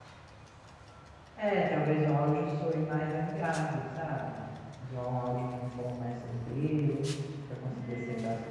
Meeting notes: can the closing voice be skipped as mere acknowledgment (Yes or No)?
No